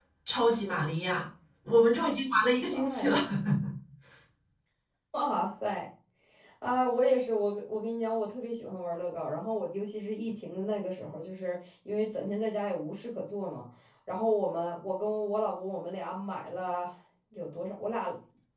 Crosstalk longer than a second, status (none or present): none